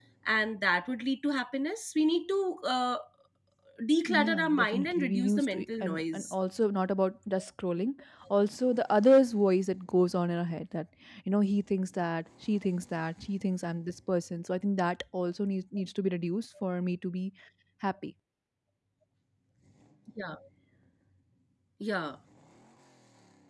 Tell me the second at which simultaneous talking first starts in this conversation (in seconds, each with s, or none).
4.1 s